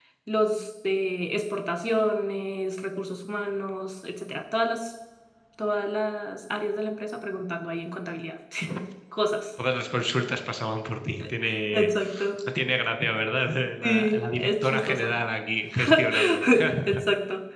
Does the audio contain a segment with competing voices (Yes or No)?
Yes